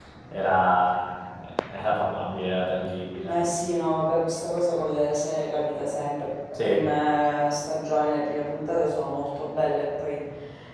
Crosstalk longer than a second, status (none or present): none